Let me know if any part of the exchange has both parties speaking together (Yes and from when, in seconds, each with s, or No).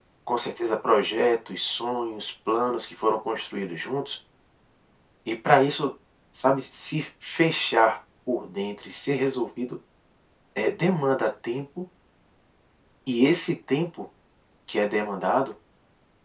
No